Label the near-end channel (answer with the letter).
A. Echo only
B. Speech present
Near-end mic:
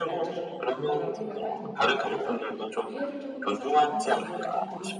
B